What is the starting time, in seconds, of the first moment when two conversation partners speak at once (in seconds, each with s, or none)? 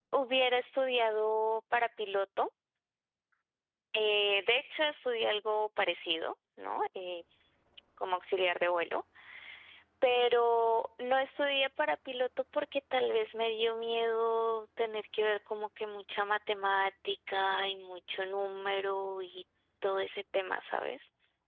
none